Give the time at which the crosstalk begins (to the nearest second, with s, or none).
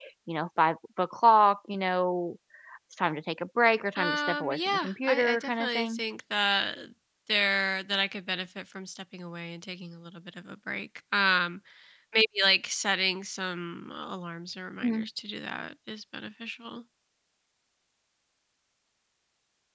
4 s